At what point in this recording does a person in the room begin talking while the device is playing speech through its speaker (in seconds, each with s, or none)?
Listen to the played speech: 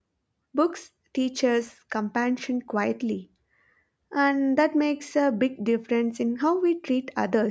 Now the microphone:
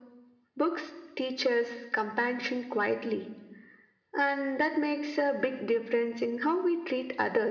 none